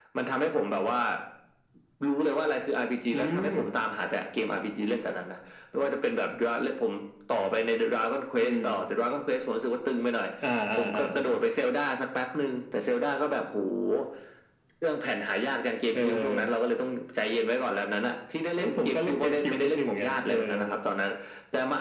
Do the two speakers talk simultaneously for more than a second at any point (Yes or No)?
Yes